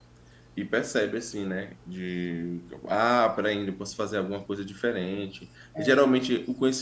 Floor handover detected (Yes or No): No